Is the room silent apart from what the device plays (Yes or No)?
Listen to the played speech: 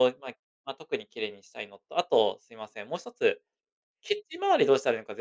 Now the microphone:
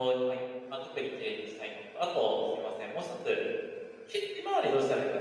Yes